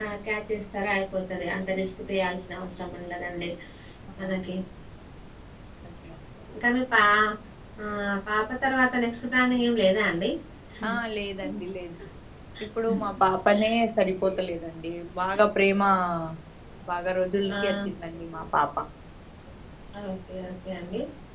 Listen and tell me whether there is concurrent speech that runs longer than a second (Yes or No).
No